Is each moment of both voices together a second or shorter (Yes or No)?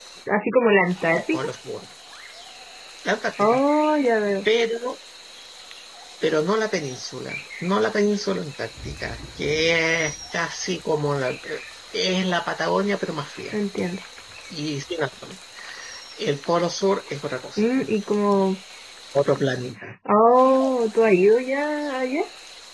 Yes